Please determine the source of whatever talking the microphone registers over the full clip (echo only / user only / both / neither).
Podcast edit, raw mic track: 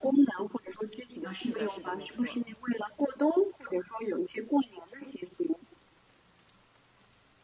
both